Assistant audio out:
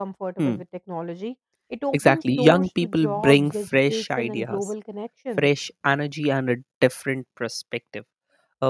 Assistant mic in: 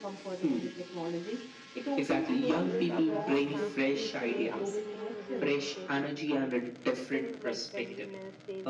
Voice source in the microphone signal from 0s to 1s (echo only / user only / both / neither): echo only